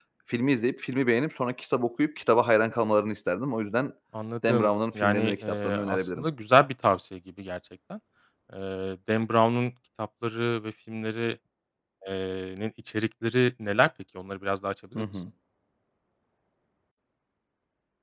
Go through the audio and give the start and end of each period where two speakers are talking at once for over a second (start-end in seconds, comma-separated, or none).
4.5-6.2